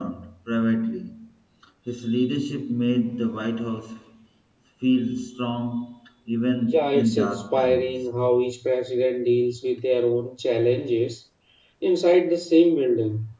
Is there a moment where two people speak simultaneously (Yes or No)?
Yes